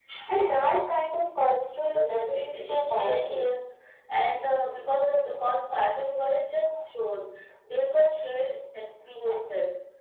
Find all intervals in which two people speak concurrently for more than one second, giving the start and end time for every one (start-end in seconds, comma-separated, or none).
1.9-3.4